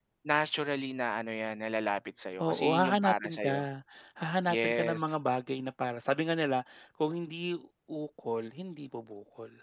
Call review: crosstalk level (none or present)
present